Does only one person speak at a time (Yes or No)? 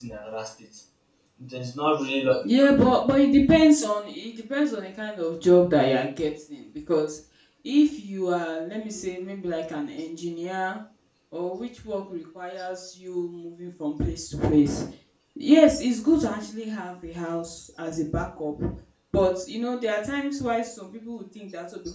Yes